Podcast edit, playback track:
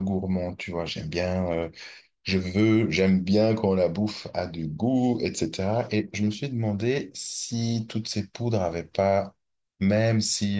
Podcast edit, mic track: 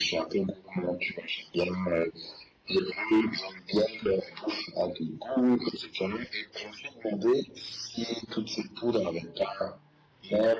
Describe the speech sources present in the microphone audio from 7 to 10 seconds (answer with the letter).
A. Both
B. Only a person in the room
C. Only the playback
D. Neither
C